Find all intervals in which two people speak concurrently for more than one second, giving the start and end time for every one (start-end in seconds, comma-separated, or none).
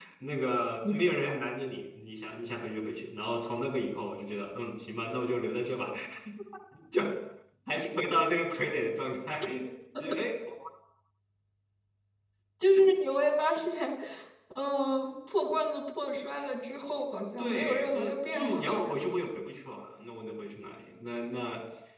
17.4-18.8